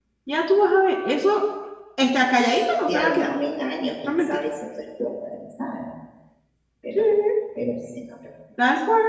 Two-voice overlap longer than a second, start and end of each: none

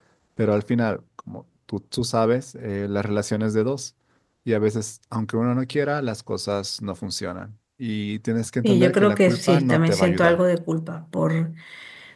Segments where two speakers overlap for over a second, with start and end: 8.6-10.4

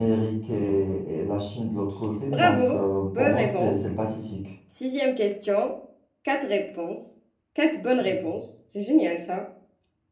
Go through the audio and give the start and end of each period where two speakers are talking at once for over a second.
2.3-3.8

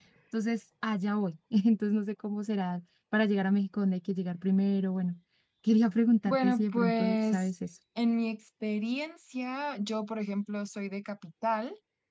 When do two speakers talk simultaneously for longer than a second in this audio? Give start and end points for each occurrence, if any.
6.3-7.5

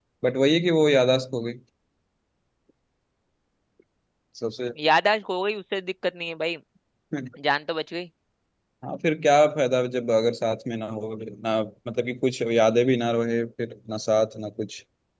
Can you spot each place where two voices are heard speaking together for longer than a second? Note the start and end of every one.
none

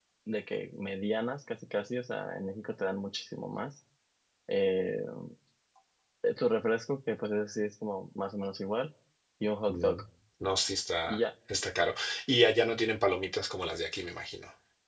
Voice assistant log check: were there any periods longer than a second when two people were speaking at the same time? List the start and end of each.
none

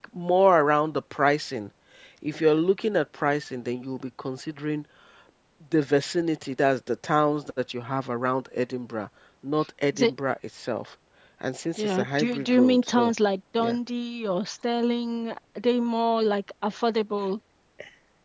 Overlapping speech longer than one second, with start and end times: 11.8-13.1

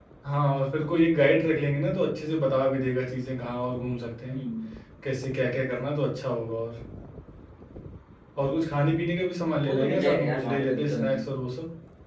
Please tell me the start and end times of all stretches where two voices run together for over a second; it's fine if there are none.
9.6-11.2

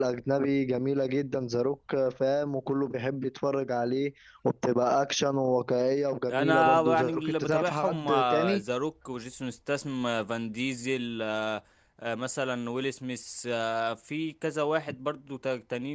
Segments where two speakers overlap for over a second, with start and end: 6.3-8.6

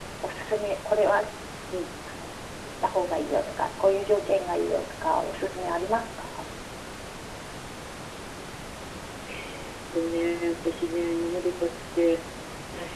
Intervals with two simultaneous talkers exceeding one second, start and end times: none

